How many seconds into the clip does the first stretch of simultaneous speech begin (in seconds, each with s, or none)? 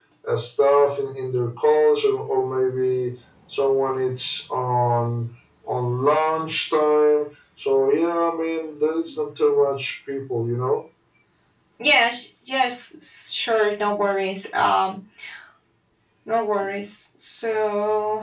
none